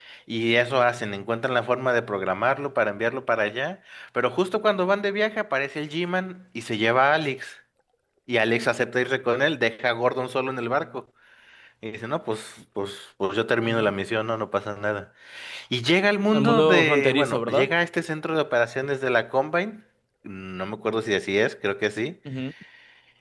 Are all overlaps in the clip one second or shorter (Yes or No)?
No